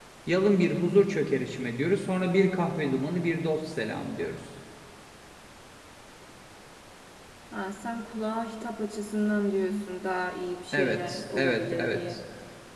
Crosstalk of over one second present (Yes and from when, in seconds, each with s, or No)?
Yes, from 10.7 s